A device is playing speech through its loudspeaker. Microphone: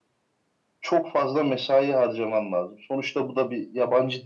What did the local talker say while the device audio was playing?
none

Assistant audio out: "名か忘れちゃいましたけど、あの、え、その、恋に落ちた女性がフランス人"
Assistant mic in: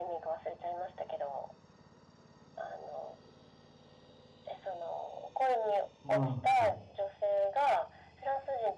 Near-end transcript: ああ、

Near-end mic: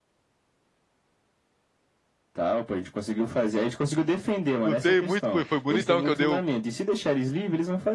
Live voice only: Lutei muito, pô, e foi bonitão que eu dei o,

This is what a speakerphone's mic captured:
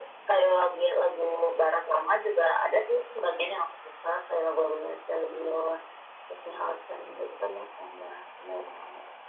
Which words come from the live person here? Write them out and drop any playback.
none

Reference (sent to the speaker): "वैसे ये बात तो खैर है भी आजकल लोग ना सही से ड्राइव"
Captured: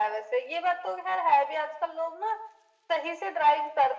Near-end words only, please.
none

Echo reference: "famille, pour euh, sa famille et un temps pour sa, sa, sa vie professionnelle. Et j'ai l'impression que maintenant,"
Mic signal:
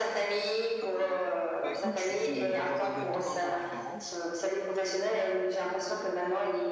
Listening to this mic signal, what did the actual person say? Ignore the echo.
Euh, ben, écoute, je suis dans un domaine totalement différent.

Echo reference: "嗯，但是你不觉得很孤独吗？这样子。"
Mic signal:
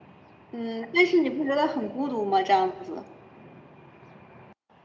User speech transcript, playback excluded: none

